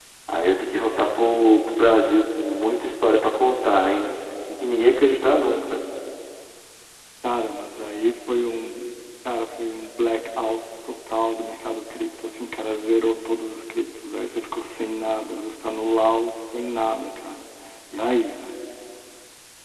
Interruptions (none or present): none